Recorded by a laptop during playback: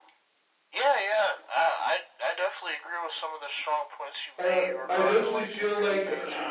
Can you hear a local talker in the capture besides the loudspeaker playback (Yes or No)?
Yes